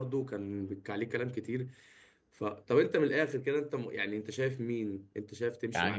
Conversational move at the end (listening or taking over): taking over